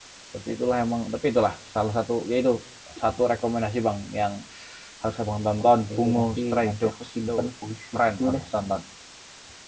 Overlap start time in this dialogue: 6 s

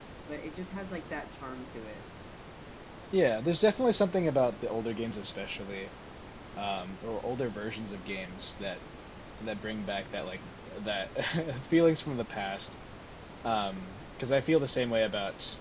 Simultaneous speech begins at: none

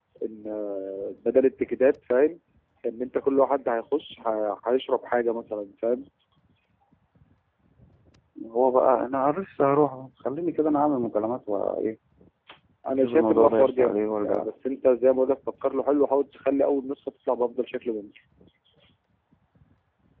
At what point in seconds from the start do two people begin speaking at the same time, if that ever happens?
13 s

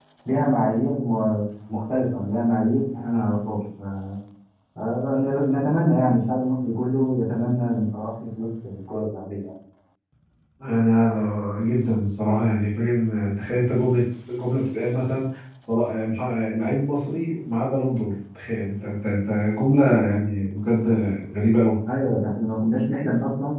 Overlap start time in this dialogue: none

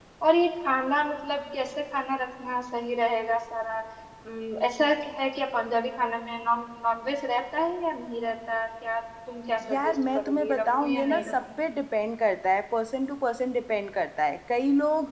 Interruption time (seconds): 10 s

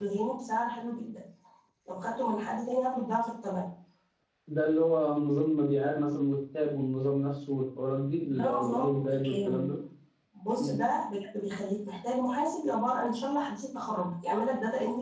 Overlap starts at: 8 s

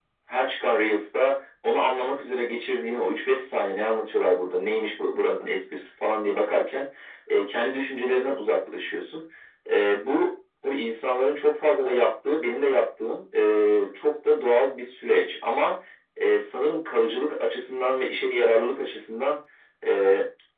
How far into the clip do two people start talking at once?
none

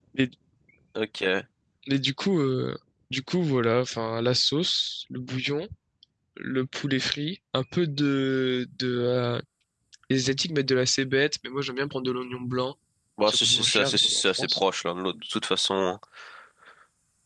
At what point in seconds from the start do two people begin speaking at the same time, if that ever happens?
13 s

